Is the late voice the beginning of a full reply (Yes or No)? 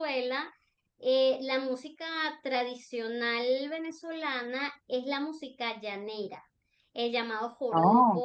No